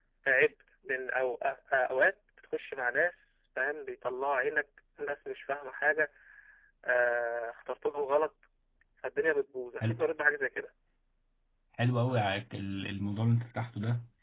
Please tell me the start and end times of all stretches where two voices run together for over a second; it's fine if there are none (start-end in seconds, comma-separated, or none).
none